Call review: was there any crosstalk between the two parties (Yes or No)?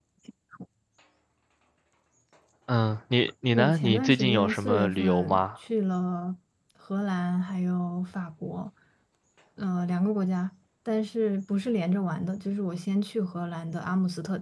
Yes